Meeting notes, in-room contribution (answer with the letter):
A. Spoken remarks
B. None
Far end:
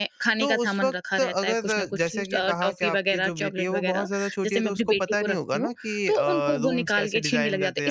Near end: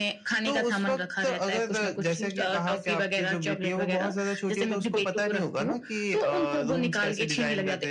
B